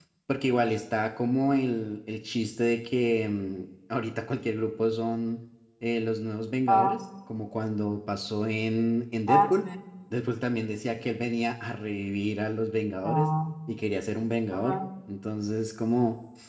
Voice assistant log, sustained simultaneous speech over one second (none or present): none